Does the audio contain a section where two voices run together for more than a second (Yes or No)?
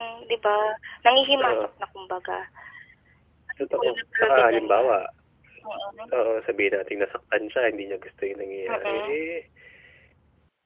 Yes